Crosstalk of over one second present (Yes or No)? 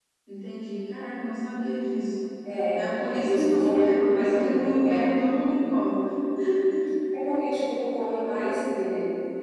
Yes